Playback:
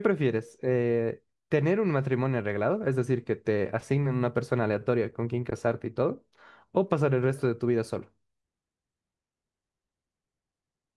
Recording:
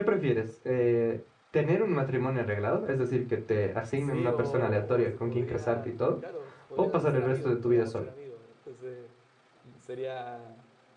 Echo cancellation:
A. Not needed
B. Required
B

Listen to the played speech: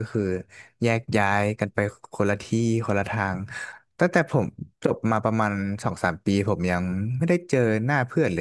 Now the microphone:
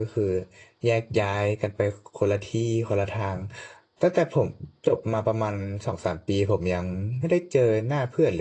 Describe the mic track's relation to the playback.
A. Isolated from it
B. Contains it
B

